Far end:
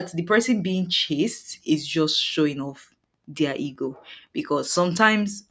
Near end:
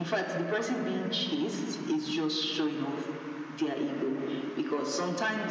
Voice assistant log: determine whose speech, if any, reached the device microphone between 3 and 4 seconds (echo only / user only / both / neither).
echo only